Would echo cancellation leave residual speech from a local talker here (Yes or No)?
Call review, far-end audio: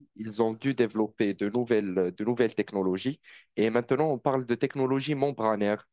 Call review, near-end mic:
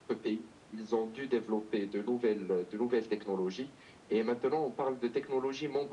No